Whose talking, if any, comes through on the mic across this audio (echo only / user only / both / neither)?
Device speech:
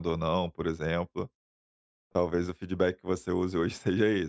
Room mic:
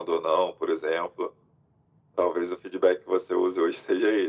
echo only